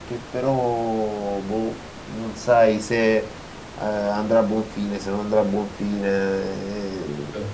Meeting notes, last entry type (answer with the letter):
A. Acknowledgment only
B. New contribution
A